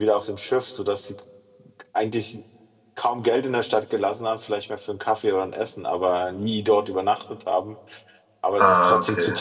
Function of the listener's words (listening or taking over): listening